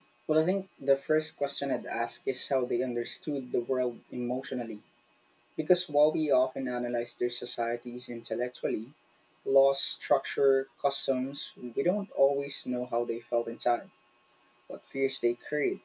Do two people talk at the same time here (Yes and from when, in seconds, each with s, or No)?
No